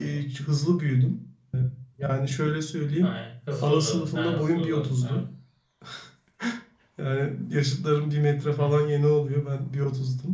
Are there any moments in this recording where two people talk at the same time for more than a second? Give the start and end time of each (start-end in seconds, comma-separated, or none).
3.6-5.2